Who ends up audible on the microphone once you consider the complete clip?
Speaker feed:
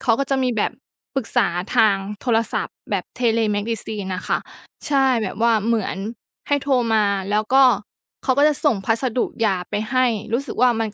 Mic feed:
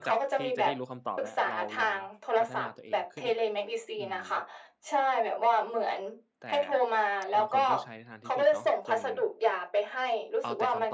both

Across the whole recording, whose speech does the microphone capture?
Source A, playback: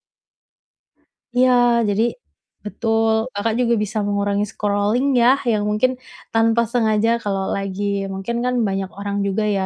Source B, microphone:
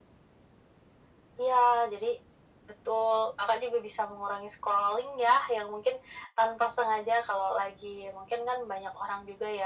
echo only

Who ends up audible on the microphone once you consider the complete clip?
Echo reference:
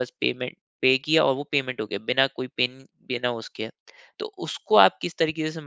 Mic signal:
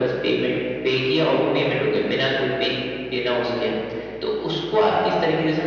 echo only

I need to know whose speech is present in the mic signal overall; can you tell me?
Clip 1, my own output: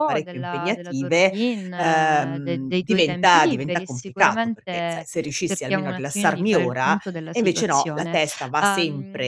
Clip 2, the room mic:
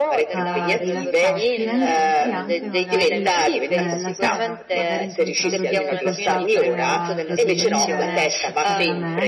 both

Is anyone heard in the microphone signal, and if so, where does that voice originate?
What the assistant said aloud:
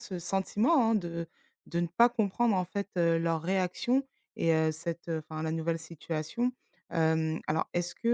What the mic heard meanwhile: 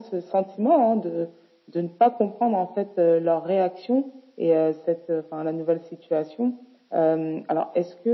echo only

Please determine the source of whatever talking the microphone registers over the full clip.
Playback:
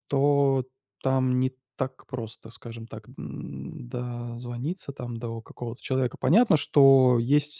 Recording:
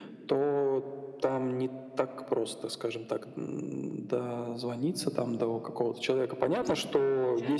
both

